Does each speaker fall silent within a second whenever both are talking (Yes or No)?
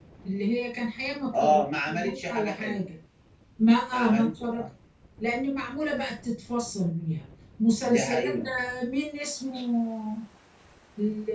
No